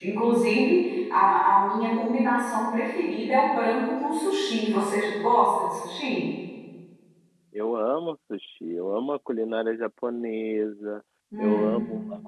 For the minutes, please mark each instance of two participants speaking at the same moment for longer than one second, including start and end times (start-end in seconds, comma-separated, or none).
none